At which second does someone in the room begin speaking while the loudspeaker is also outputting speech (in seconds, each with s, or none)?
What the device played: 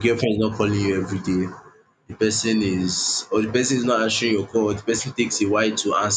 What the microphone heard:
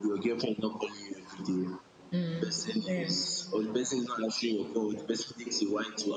2.1 s